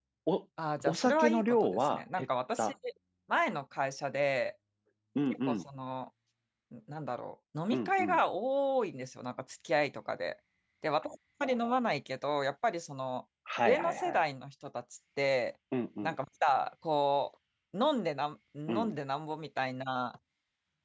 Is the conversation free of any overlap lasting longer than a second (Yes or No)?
No